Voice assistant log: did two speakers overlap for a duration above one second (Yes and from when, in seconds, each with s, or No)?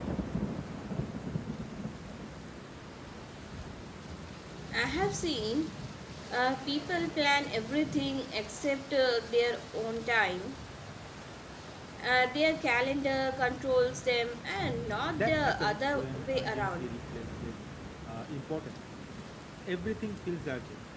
Yes, from 14.9 s